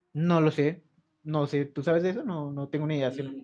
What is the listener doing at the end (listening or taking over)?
taking over